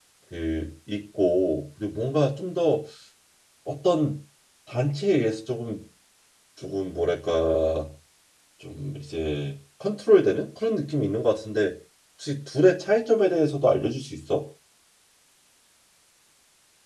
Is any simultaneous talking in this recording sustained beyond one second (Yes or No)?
No